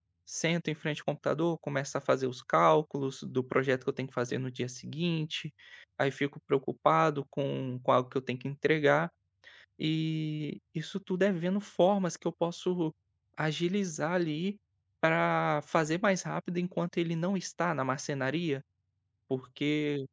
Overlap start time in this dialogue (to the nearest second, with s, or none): none